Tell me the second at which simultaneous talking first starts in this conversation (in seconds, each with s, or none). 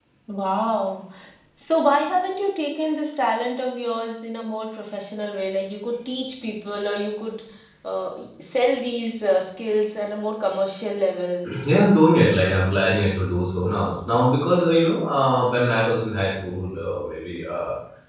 none